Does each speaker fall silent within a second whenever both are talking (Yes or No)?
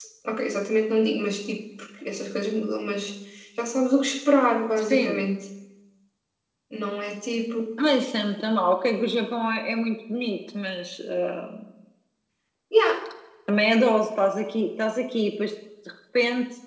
Yes